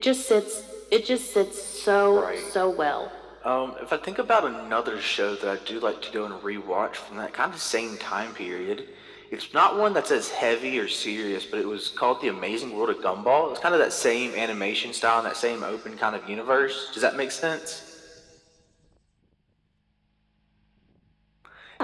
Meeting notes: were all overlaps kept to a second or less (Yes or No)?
Yes